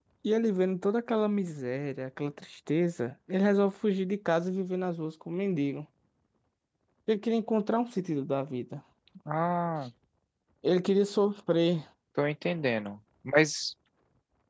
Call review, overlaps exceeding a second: none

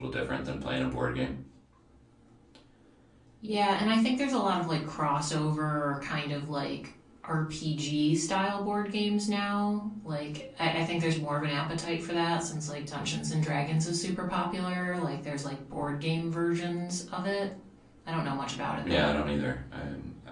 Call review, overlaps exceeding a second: none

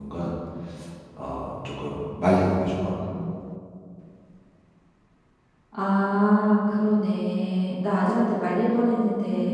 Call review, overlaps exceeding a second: none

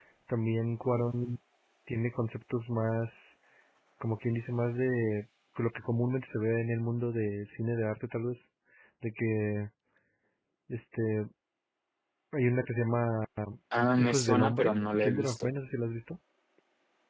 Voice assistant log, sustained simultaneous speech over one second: present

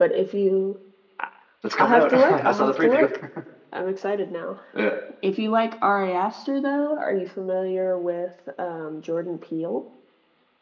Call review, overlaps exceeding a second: present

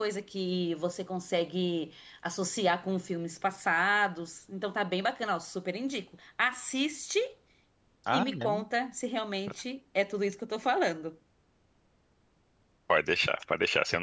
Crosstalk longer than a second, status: none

